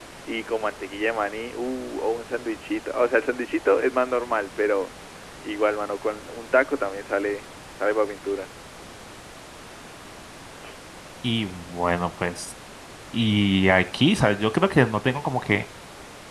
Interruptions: none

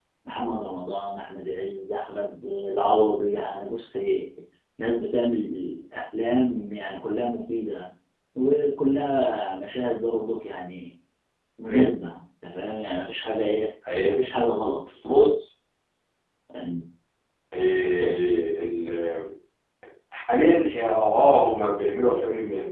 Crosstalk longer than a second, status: none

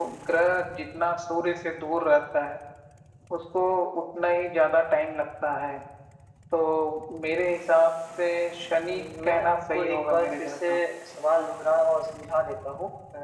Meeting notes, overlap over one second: present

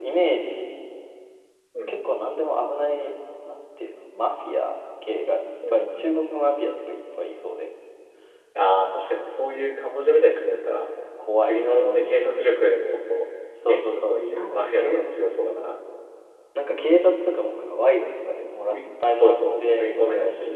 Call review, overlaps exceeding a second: present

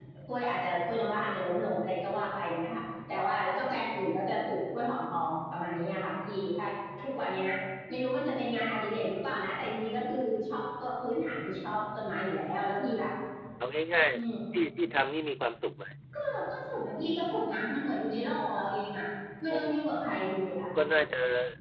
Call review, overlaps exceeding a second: none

